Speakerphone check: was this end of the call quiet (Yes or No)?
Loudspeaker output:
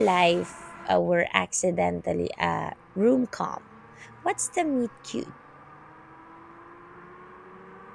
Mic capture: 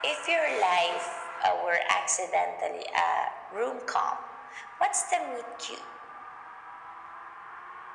Yes